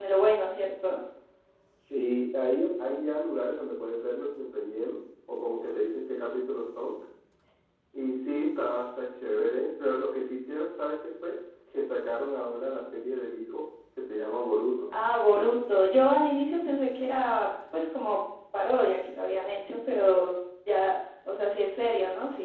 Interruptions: none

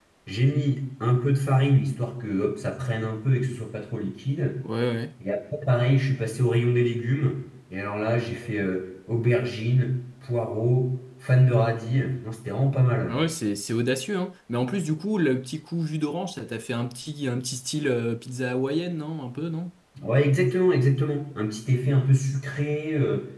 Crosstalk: none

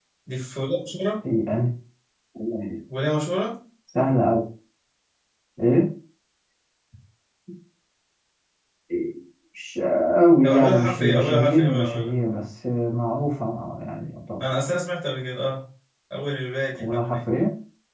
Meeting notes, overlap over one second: present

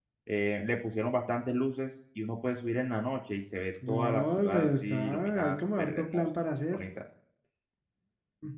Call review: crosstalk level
present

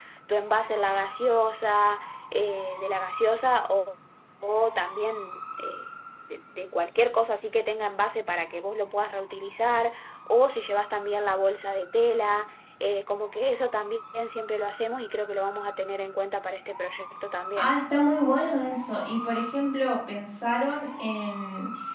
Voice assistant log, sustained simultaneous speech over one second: none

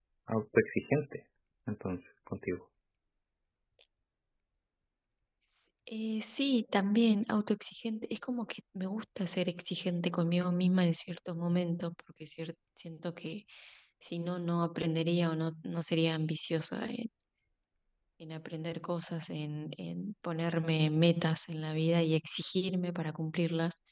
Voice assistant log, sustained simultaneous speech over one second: none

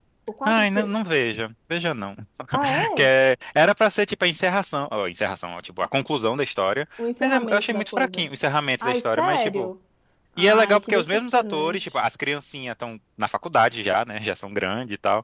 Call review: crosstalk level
present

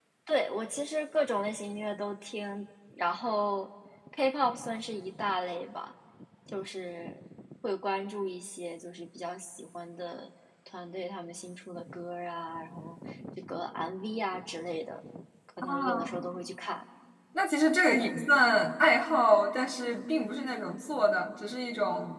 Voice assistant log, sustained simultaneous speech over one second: none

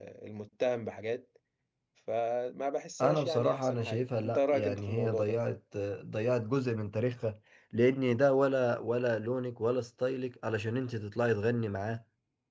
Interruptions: present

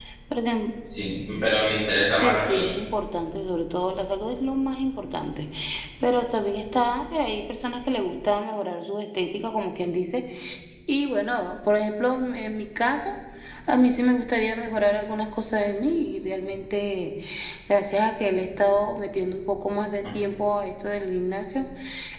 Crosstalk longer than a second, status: none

